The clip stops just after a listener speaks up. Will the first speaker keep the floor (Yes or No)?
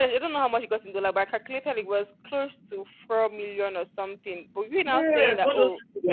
No